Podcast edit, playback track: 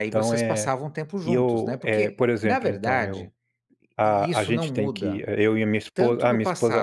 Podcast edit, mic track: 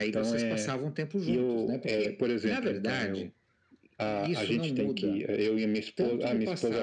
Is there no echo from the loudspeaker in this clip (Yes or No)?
No